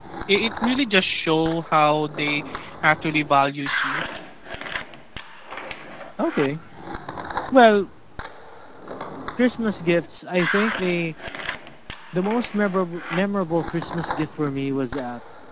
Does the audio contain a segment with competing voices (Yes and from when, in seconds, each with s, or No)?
No